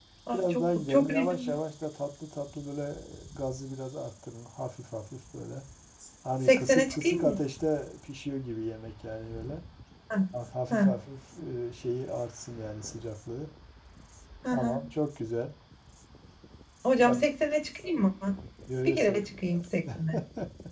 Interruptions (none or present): present